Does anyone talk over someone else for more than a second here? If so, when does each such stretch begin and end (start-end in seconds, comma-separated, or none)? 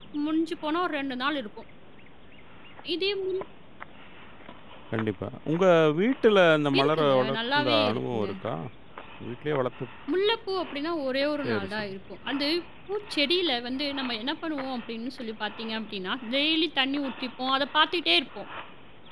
6.8-8.3